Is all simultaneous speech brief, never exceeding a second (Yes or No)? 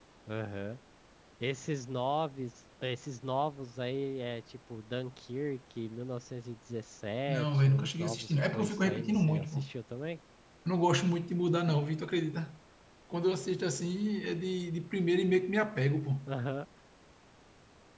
No